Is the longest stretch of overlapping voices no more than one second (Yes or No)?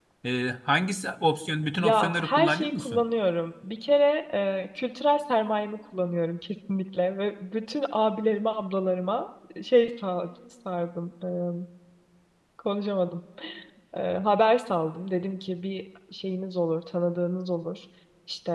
No